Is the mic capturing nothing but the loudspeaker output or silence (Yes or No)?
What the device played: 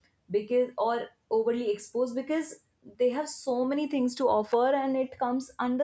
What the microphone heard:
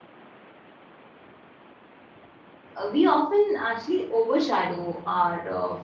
No